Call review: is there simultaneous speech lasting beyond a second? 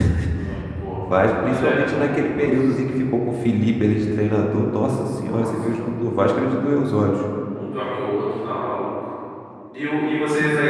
Yes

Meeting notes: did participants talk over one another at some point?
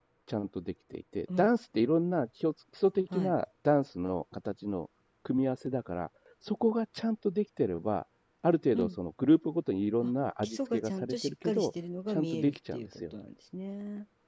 Yes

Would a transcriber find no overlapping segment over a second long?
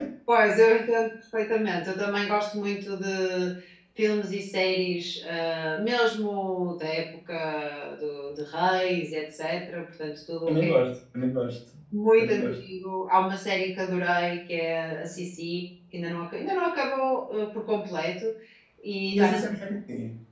Yes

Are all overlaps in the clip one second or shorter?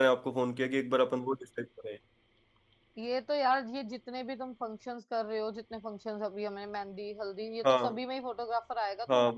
Yes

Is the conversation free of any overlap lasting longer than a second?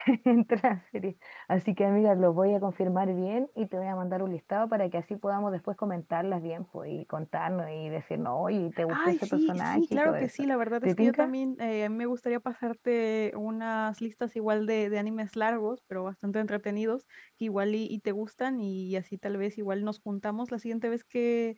No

